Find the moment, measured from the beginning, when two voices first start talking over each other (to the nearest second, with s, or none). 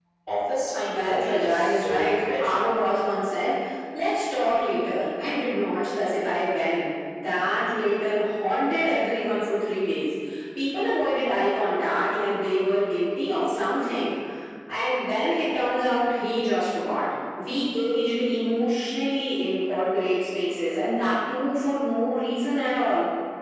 1 s